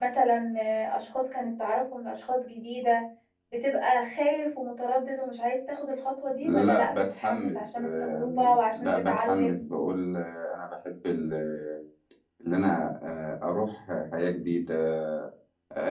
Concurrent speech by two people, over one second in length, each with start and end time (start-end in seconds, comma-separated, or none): 6.4-9.6